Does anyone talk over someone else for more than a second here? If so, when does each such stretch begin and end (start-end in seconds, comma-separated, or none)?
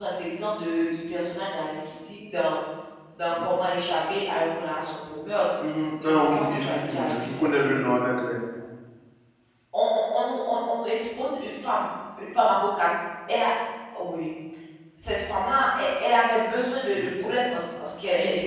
6.0-7.8